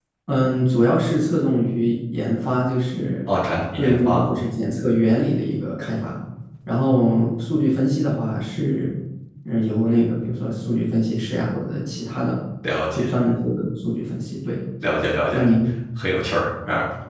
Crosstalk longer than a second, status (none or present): none